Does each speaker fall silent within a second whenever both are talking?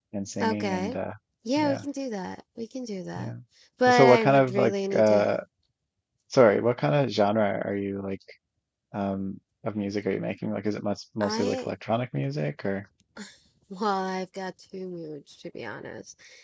No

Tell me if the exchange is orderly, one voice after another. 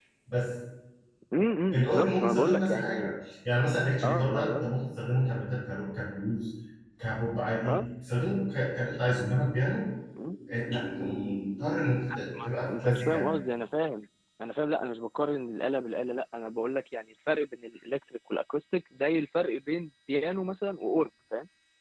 No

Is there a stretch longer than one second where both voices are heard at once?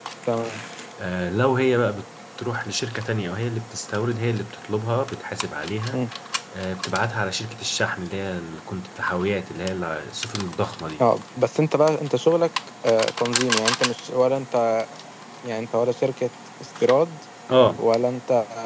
No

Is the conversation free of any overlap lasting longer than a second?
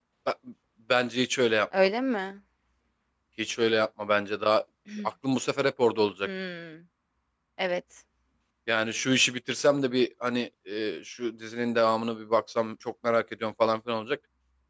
Yes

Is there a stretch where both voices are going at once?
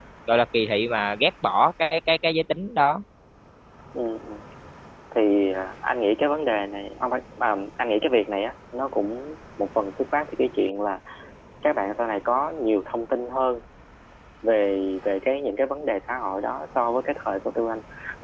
No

